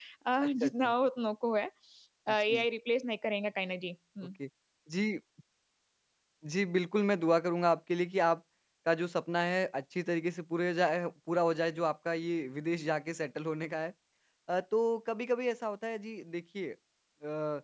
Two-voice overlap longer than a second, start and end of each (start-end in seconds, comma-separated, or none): none